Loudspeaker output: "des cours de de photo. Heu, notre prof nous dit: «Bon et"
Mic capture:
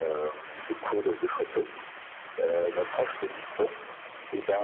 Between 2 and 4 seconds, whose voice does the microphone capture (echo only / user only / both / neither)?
echo only